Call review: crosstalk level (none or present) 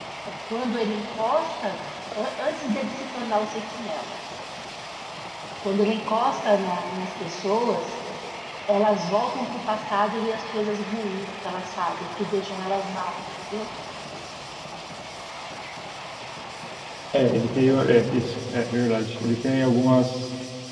none